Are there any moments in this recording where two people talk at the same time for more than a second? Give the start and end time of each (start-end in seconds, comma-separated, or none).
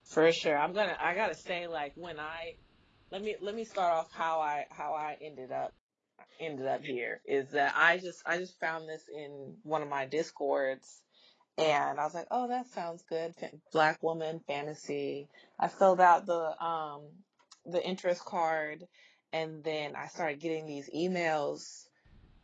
none